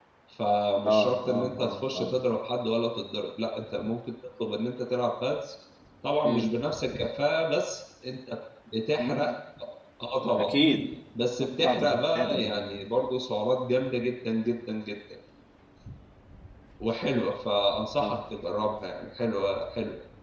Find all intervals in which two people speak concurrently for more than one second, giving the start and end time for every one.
0.8-2.1, 11.4-12.8

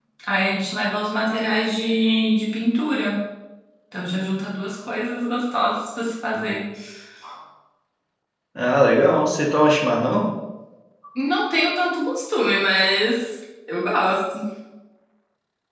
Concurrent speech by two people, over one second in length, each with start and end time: none

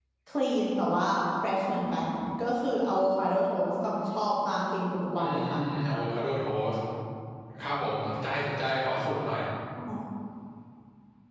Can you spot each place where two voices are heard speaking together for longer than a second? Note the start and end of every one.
none

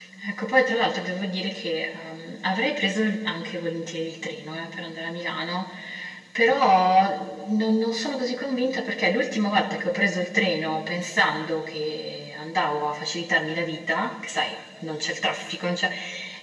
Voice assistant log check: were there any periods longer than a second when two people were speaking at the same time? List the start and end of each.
none

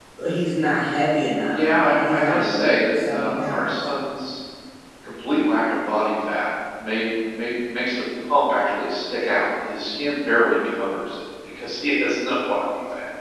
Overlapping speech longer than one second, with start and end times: 1.5-3.8

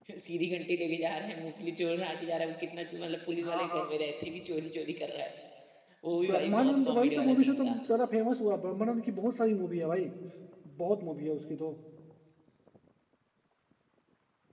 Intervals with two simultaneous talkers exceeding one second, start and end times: 6.3-7.8

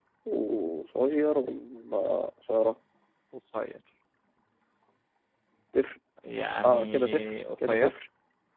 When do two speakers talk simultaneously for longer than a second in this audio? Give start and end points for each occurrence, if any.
6.6-7.9

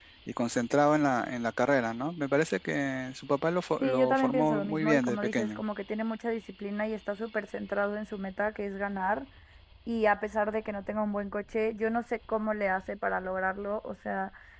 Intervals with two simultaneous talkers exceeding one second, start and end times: 3.8-5.6

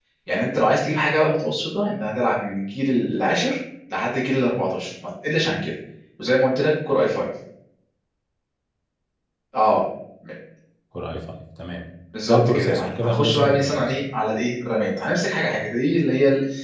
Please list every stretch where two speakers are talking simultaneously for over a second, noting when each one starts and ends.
12.2-13.9

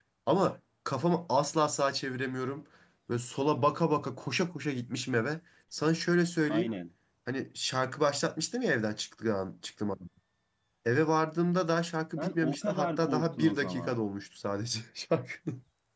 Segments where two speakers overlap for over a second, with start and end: 12.2-14.0

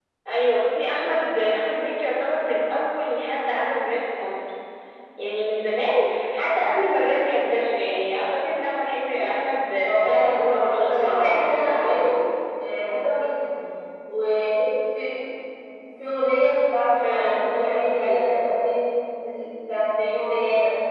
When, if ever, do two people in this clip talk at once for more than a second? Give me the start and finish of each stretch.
9.8-12.0, 17.0-18.3

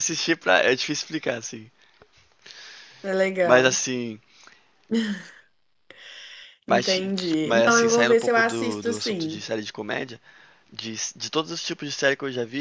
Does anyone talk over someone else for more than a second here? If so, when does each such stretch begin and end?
6.7-9.4

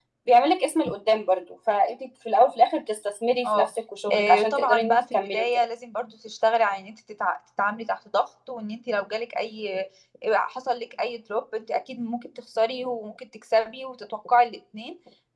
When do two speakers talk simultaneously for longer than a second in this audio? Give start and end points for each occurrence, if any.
4.1-5.6

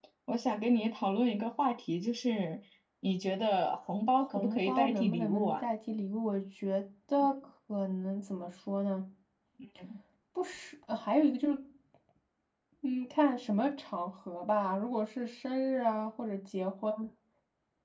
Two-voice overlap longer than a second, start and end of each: 4.3-5.6

